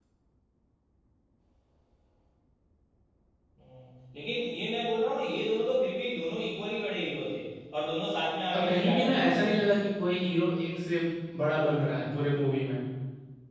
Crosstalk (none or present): present